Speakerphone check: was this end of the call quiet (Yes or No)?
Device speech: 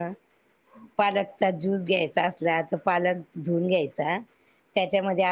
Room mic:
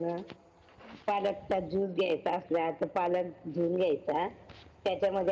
Yes